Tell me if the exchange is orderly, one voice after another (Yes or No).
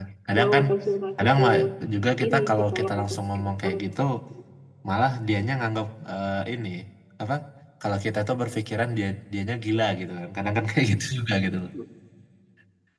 No